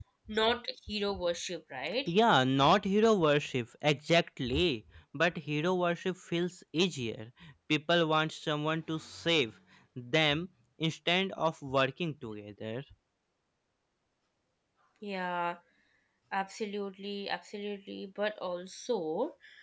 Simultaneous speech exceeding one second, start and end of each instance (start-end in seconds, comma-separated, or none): none